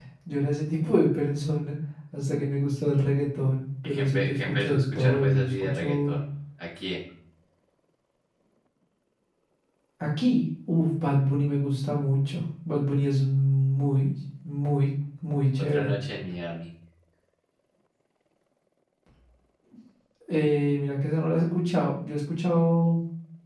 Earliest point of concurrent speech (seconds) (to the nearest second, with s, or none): 4 s